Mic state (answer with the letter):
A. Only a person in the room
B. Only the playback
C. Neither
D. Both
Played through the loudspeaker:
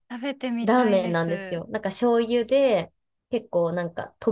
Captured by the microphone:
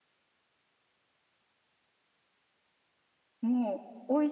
A